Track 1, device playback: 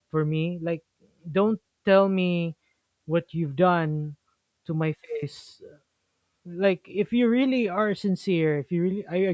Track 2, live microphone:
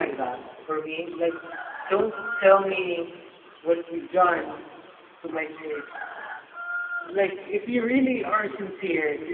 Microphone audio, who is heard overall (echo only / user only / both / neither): echo only